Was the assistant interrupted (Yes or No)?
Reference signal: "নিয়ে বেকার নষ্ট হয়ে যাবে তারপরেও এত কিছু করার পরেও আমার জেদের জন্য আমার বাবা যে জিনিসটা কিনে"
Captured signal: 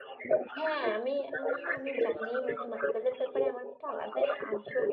Yes